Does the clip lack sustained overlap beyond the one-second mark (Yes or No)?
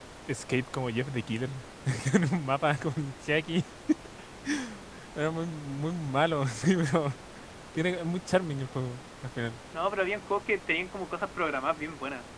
Yes